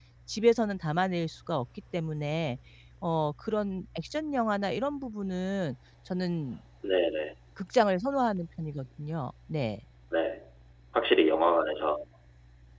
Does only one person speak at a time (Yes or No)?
Yes